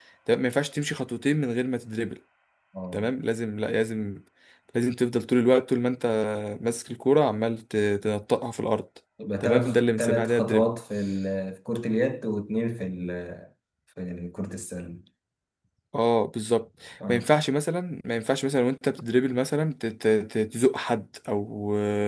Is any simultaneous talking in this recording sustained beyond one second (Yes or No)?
Yes